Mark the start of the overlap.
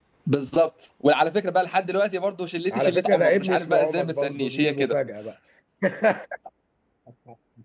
3 s

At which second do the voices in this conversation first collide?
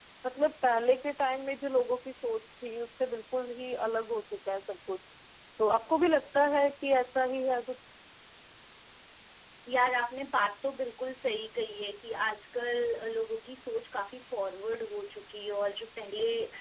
none

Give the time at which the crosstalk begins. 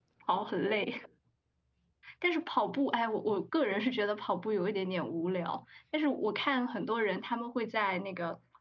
none

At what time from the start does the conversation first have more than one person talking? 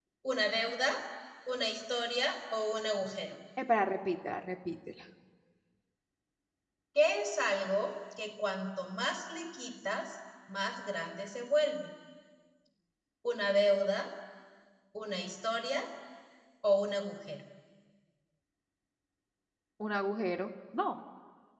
none

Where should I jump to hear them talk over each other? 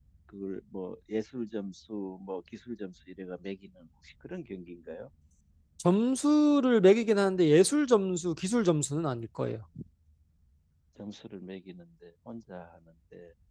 none

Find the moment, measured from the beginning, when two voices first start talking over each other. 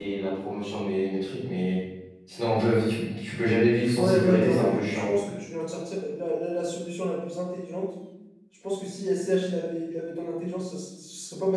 4 s

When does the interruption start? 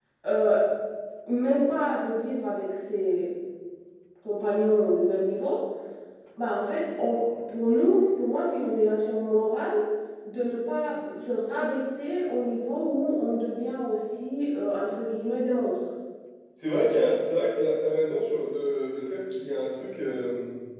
none

